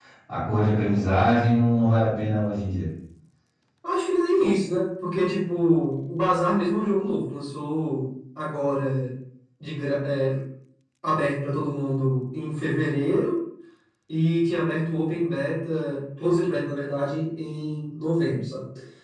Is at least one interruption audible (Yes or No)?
No